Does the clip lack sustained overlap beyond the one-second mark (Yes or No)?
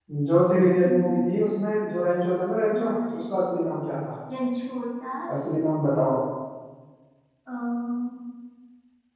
Yes